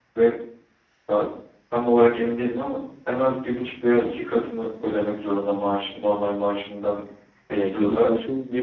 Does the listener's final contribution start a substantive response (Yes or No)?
Yes